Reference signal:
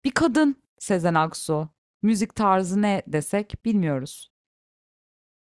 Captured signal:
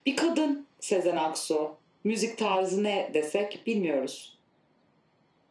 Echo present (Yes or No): Yes